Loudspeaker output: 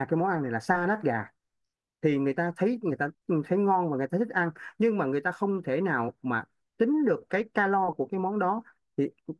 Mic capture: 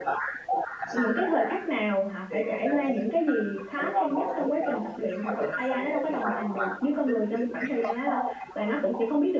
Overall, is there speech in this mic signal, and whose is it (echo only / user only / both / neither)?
both